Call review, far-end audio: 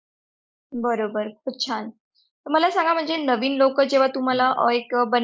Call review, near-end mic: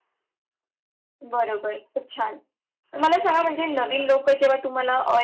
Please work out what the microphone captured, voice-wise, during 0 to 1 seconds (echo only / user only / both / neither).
neither